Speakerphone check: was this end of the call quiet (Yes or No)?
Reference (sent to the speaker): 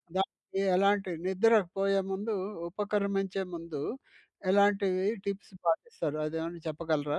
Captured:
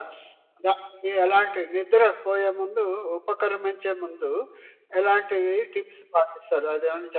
Yes